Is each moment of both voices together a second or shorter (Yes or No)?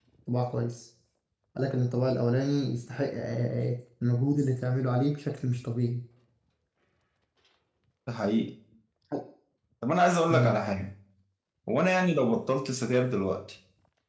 Yes